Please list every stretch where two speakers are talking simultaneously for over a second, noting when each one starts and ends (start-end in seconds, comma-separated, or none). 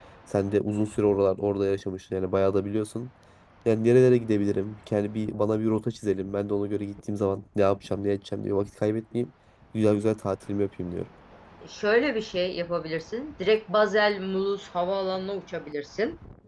none